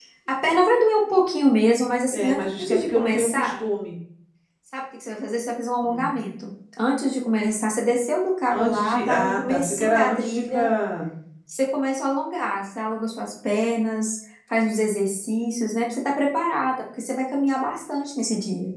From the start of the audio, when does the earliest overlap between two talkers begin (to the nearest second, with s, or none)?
2 s